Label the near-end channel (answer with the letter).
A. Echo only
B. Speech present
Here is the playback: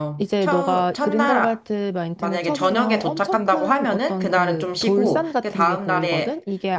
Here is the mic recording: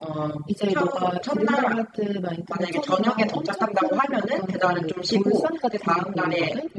A